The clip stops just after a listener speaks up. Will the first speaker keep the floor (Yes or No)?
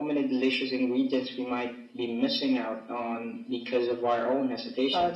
No